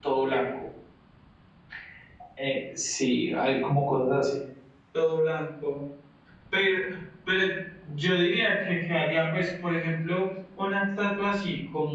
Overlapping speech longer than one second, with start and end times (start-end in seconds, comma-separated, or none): none